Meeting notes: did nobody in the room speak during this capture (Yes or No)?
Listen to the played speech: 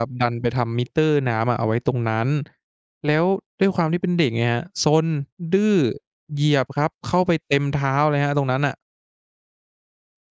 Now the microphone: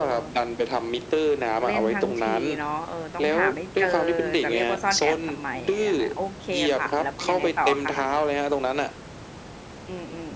No